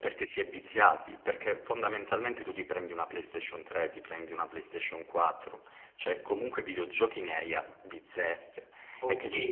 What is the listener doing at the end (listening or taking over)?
taking over